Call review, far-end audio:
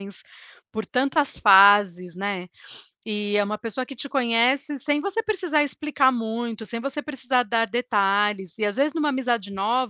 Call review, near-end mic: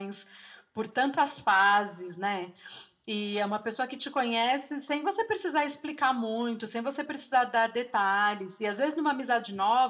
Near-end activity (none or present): none